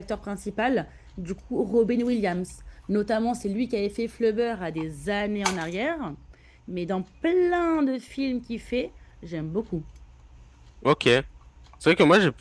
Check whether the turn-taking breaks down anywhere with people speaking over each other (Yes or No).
No